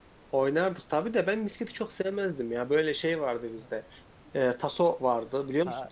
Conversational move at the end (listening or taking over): taking over